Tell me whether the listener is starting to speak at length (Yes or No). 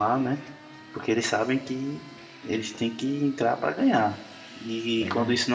No